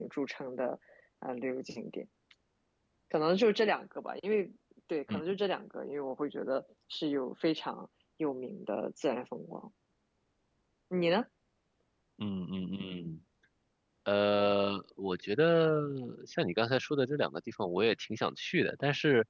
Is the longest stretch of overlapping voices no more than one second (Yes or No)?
Yes